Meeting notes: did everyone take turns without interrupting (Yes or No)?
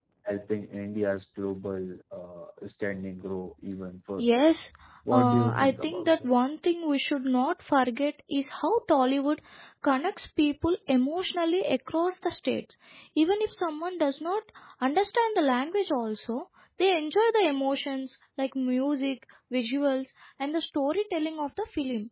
No